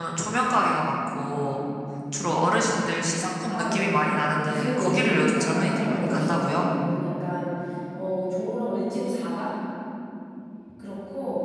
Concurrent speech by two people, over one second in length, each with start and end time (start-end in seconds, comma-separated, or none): 3.5-6.7